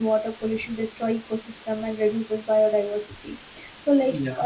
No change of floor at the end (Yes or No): Yes